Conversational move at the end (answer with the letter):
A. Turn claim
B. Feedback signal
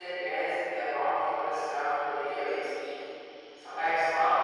B